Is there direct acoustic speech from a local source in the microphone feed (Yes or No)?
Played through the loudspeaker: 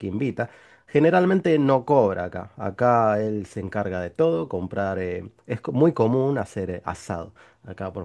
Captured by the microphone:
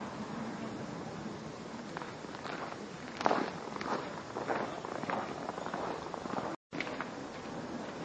No